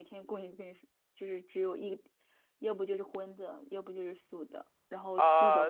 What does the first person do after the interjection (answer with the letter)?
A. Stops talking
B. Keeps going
A